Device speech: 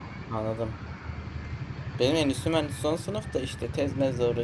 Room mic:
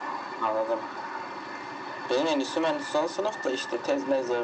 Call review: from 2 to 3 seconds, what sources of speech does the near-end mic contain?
echo only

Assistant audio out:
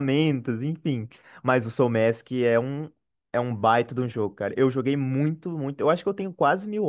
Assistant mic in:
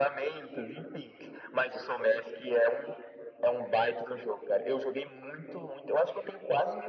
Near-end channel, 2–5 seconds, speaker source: echo only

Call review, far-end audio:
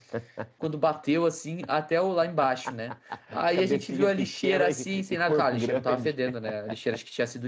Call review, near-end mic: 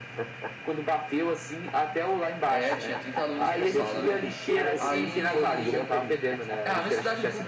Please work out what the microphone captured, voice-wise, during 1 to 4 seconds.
both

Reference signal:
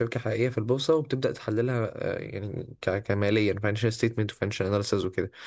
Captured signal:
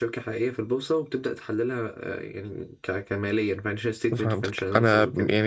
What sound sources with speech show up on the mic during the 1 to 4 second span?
echo only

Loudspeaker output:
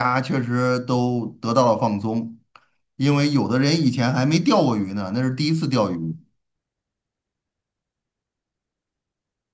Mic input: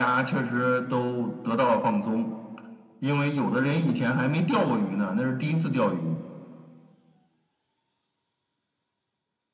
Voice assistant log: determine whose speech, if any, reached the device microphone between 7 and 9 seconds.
neither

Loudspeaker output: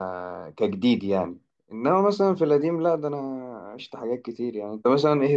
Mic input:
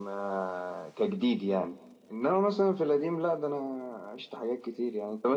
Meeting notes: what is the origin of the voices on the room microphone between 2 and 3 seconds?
echo only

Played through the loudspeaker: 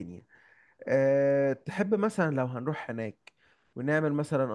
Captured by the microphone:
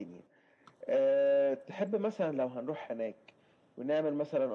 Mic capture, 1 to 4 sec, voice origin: echo only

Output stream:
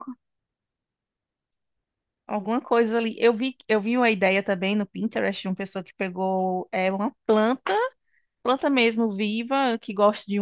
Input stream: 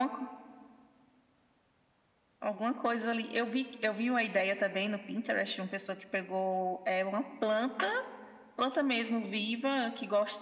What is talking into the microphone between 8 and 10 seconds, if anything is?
echo only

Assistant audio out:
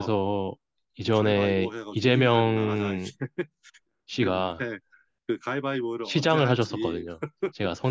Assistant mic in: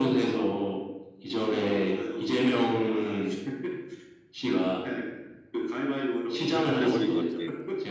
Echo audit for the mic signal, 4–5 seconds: echo only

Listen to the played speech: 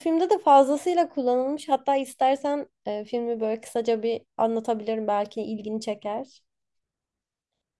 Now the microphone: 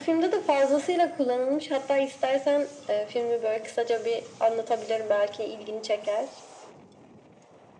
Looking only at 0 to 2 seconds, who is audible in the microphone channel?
echo only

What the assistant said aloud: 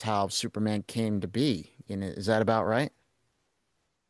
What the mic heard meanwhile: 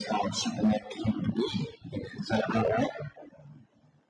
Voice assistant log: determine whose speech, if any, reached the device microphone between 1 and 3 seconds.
echo only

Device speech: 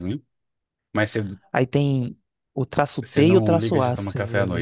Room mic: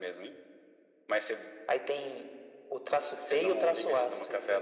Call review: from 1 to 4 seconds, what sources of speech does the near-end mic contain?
echo only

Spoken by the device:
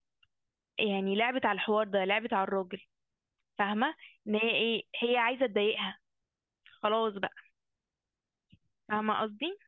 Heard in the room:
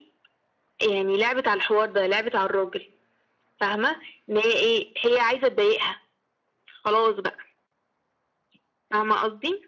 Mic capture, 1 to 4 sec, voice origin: echo only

